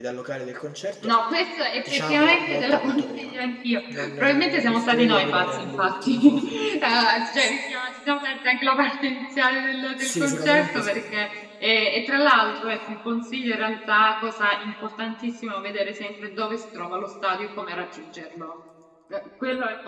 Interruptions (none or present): present